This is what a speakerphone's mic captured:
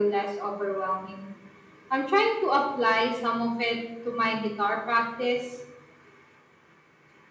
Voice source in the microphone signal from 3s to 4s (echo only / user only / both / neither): echo only